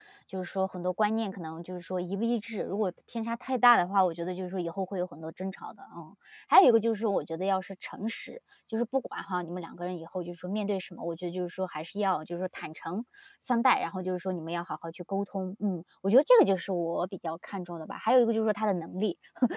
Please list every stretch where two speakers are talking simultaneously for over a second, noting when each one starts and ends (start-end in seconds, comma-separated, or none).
none